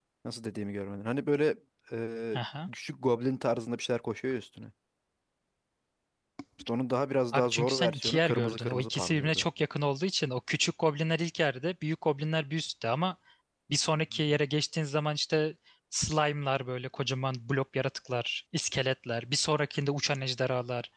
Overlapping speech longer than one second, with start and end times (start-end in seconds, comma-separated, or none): 7.3-9.4